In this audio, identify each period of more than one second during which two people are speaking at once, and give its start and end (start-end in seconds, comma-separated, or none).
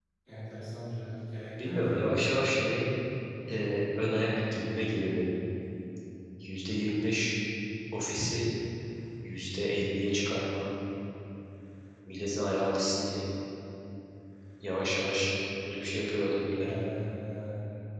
none